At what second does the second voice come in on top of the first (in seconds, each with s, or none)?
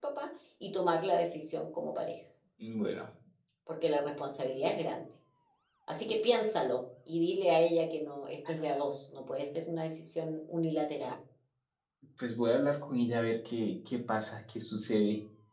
none